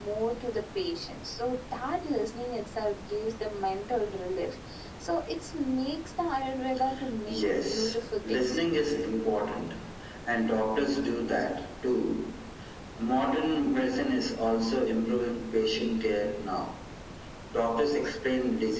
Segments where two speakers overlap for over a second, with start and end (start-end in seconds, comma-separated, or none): 7.3-8.6